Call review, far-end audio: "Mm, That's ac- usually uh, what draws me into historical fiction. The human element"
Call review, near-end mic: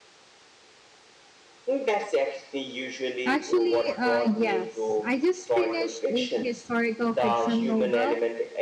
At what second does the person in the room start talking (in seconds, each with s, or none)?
3.2 s